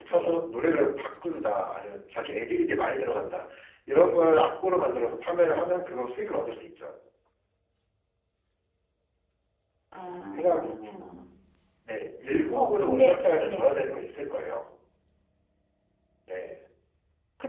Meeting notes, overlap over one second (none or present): present